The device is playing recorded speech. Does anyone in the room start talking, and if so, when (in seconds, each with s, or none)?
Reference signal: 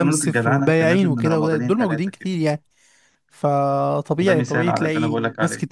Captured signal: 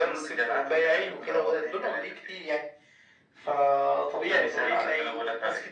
none